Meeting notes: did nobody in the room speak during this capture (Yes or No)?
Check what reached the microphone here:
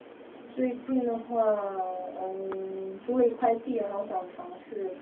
No